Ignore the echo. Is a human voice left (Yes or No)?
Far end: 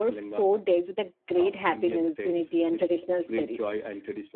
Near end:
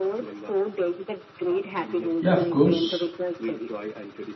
Yes